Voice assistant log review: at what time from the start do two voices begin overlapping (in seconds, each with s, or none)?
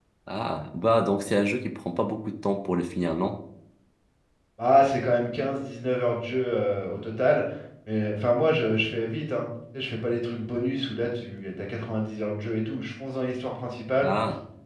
none